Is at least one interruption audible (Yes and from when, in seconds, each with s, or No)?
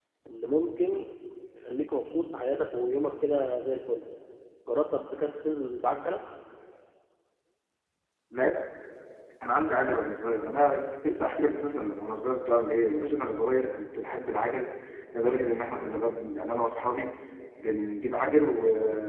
No